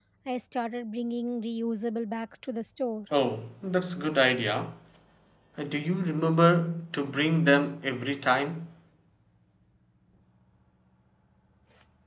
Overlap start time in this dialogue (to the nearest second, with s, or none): none